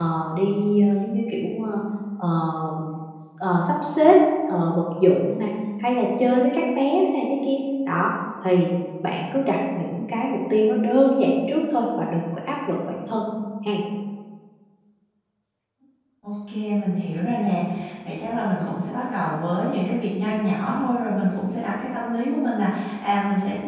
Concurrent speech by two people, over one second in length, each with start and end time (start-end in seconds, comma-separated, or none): none